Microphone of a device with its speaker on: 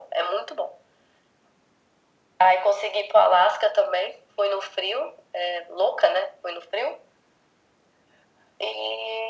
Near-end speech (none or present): none